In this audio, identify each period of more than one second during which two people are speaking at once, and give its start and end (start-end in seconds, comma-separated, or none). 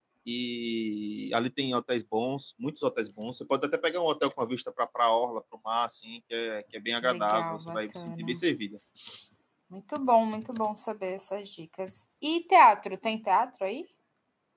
7.0-8.4